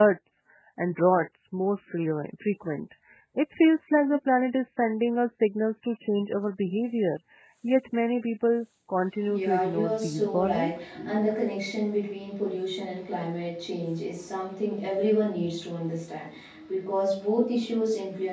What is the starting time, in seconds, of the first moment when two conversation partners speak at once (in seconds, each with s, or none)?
9.3 s